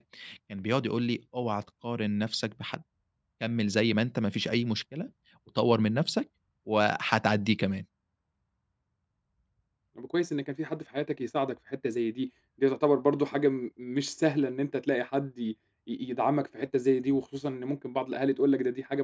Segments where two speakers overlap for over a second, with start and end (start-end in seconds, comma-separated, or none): none